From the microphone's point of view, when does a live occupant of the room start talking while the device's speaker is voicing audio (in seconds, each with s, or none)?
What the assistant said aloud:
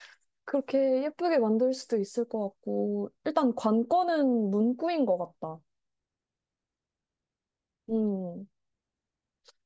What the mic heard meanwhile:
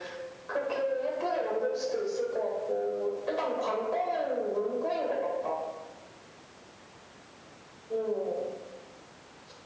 none